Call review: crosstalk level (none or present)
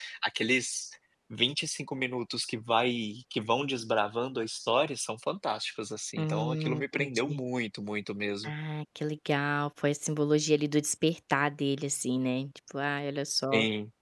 present